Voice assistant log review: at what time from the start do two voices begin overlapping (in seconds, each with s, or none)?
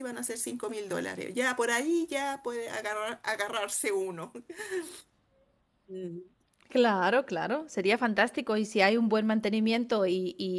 none